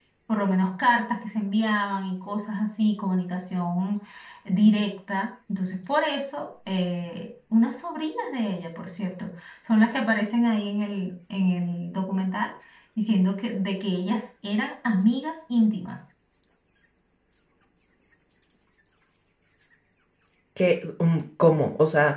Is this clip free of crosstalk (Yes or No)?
Yes